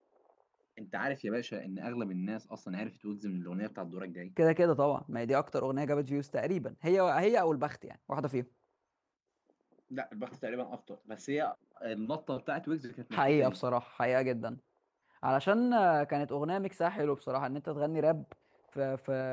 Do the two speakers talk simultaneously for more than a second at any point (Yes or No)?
No